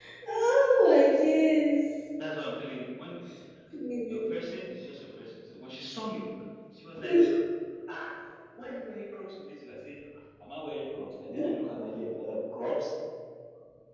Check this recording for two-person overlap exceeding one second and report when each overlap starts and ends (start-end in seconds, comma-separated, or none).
none